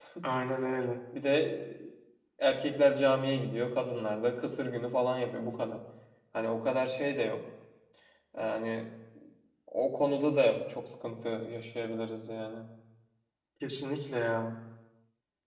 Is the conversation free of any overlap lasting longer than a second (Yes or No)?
Yes